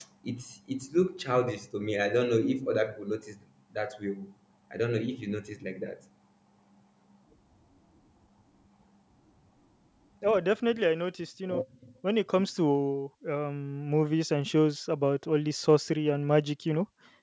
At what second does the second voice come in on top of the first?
none

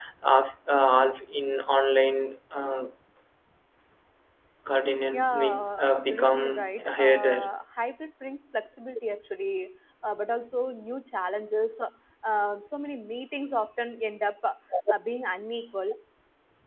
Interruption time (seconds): 5.1 s

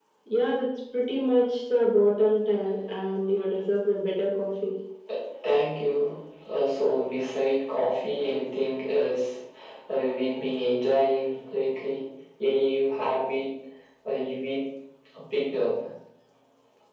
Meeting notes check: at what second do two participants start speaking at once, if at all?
none

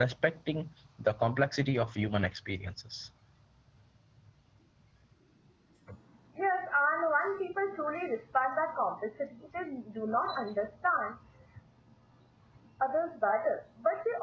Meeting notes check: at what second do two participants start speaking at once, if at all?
none

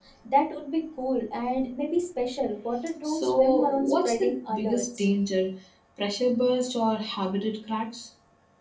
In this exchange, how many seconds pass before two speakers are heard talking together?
3.0 s

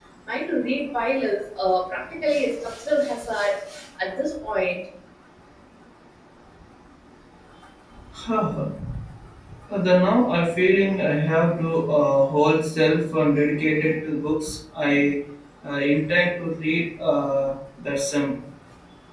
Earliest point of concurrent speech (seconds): none

